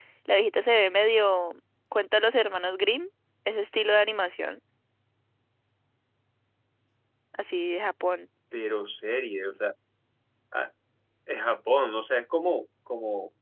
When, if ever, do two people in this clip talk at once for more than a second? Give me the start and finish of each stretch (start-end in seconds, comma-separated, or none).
none